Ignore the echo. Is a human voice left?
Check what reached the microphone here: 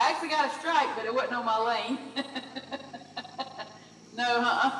No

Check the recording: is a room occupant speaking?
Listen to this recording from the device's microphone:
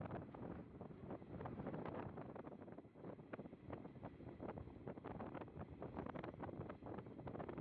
No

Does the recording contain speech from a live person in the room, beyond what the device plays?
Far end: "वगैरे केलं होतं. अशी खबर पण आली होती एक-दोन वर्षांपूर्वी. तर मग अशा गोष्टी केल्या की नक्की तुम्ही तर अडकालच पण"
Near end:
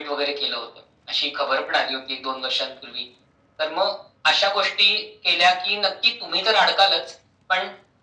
No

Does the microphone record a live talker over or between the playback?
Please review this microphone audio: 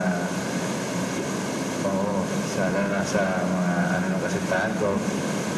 No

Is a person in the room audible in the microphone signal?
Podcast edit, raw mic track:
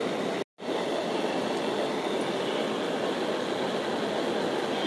No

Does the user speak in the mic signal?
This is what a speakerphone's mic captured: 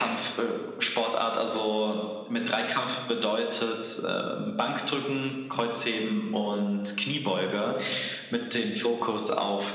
No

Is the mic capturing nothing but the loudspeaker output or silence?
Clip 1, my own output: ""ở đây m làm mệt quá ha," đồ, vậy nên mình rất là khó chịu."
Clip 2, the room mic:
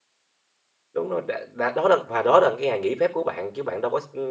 No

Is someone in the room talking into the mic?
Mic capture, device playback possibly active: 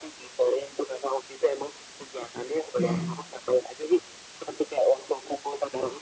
Yes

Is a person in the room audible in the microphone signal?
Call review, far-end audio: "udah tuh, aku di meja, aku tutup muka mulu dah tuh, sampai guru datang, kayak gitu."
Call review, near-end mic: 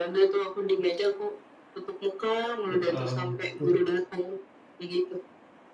Yes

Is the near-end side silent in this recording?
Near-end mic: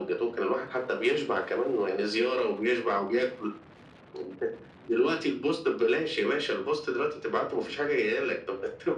Yes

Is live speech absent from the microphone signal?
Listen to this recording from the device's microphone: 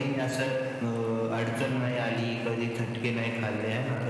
Yes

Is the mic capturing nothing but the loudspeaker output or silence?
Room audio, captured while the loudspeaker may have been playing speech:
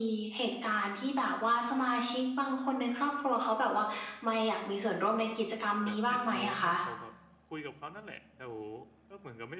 No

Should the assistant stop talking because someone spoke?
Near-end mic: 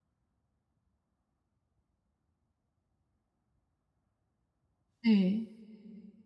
Yes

